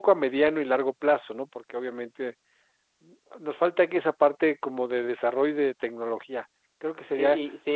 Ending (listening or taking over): taking over